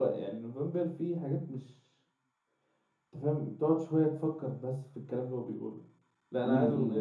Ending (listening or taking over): taking over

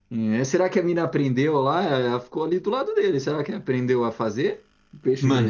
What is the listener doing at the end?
taking over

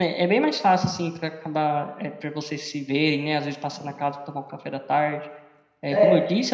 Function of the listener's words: listening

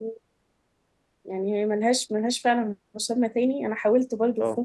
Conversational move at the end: listening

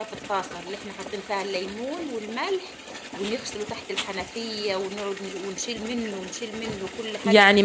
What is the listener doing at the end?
taking over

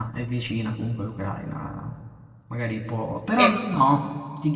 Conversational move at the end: listening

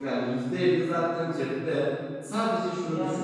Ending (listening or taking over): listening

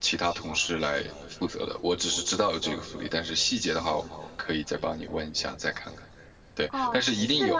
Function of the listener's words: taking over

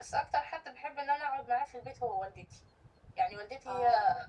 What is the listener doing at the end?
listening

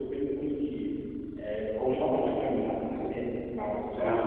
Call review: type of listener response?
taking over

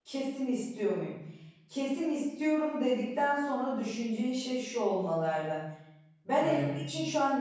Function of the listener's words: listening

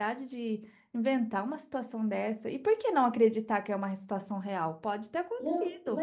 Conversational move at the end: taking over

